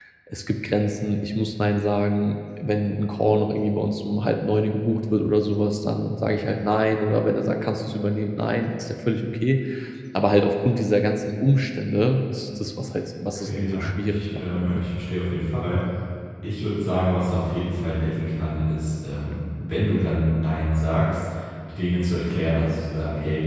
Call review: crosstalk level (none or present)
present